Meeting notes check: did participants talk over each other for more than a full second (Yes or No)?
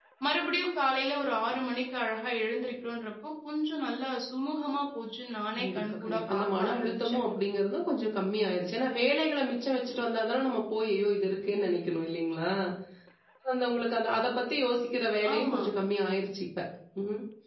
Yes